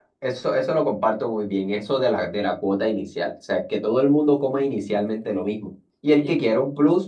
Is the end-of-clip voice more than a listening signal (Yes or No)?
No